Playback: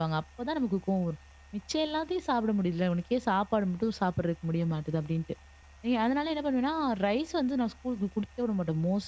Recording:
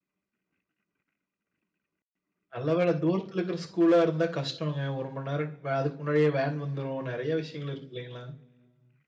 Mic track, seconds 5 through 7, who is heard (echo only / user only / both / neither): user only